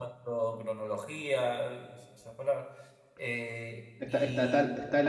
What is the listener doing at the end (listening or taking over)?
taking over